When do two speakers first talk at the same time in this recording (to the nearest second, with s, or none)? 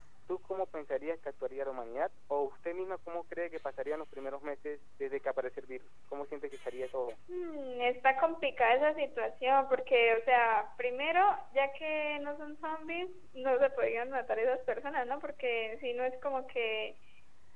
none